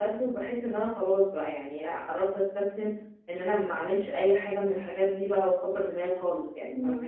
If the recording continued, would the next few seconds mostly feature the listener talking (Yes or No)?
Yes